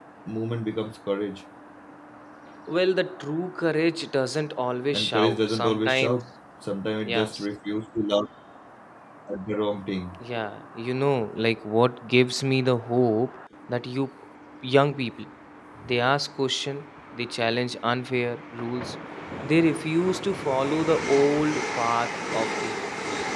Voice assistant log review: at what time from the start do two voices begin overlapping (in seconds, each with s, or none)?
4.9 s